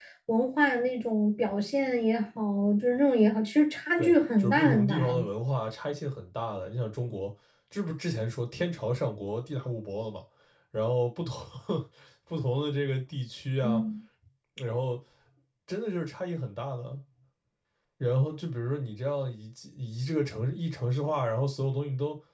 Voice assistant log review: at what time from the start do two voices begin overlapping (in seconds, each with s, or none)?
4.0 s